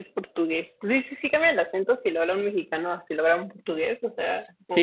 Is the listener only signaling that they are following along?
No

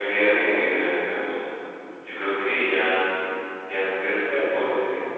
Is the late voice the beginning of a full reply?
Yes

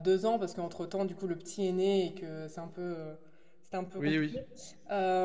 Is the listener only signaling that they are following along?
Yes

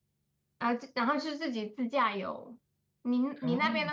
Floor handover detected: No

